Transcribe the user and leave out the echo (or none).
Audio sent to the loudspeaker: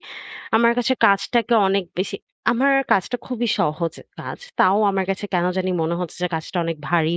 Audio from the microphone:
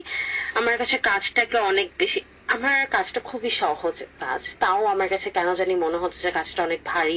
none